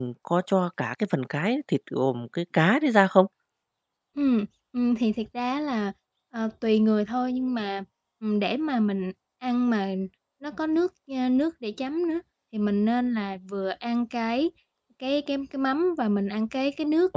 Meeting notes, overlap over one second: none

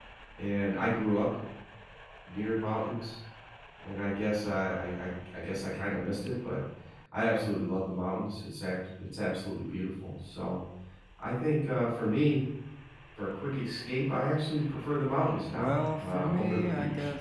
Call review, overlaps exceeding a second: present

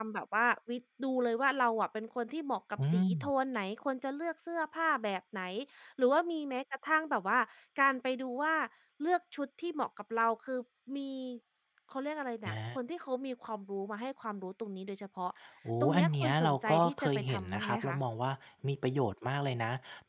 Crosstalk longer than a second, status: present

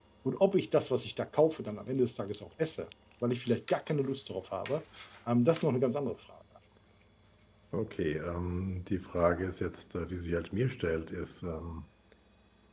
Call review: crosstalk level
none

